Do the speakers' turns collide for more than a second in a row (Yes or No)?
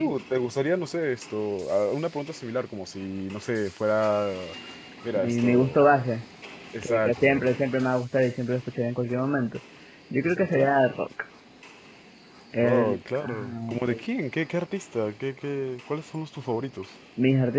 Yes